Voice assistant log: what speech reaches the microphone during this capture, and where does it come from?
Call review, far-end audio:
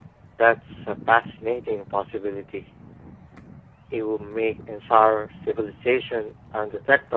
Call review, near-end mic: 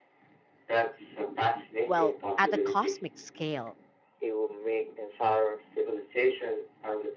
both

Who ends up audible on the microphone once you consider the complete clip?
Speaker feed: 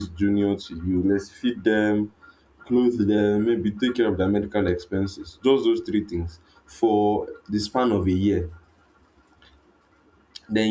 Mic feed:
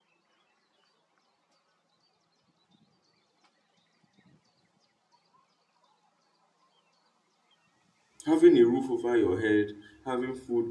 user only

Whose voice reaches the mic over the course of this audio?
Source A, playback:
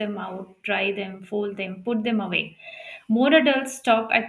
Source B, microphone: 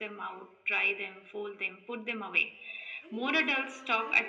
both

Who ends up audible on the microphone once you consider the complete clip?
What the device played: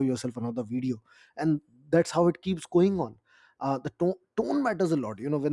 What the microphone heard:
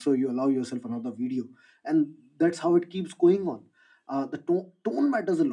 echo only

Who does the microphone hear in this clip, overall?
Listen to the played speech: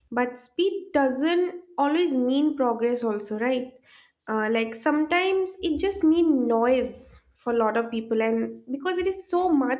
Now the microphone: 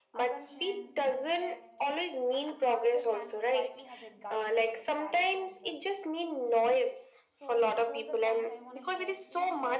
both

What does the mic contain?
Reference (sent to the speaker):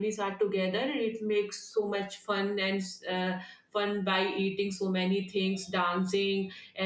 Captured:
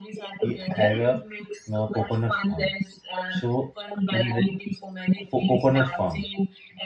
both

